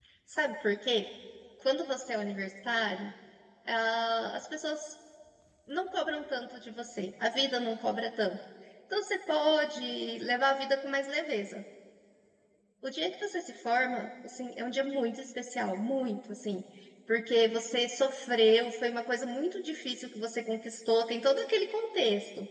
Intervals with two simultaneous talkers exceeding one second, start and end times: none

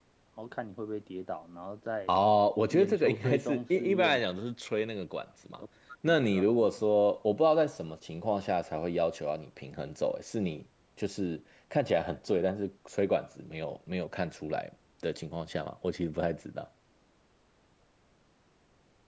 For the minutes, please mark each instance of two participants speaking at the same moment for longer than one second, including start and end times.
2.7-4.2

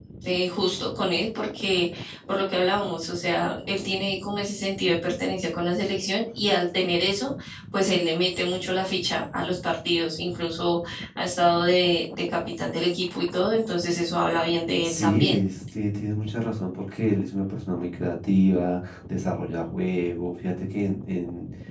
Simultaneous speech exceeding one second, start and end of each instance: none

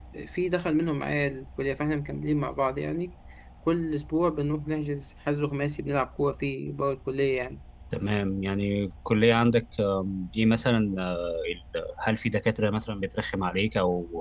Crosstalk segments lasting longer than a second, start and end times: none

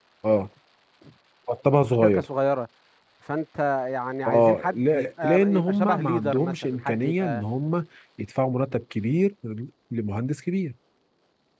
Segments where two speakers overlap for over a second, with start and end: 4.3-7.4

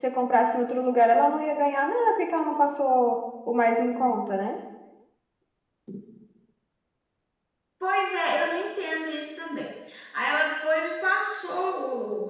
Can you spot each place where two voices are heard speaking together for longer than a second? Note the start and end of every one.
none

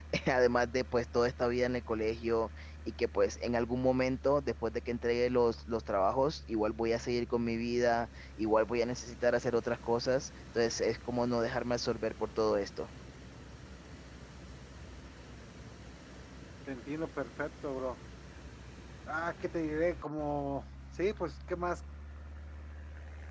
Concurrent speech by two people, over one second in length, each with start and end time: none

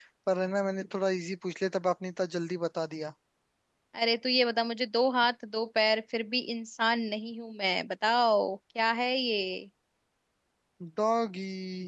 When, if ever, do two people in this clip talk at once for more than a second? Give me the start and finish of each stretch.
none

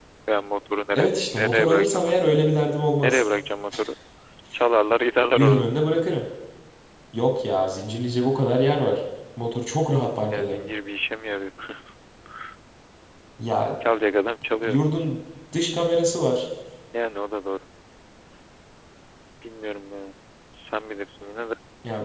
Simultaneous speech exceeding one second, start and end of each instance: 1.0-2.4

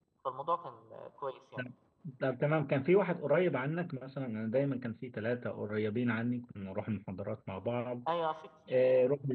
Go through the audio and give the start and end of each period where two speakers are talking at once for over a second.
none

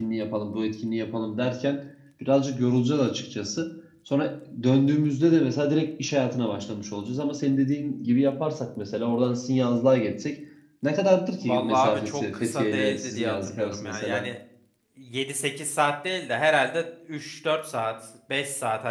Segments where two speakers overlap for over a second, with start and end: 11.4-14.2

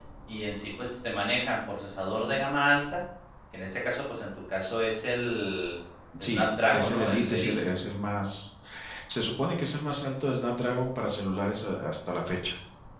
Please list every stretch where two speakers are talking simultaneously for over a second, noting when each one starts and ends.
6.2-7.5

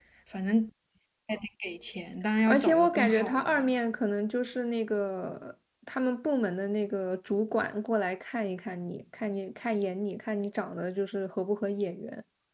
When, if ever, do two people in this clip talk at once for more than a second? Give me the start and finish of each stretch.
2.5-3.7

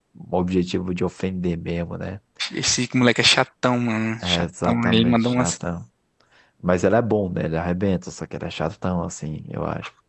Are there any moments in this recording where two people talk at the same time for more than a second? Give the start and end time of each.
4.2-5.5

